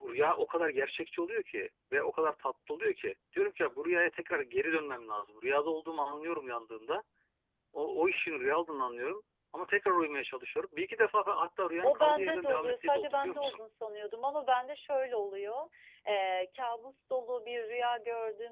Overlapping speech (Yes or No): Yes